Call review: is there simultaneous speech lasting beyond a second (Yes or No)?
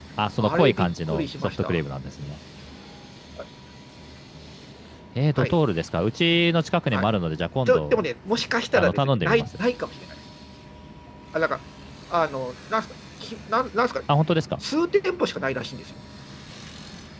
Yes